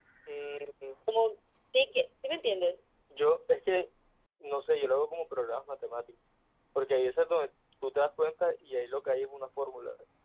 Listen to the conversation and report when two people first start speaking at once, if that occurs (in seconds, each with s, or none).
none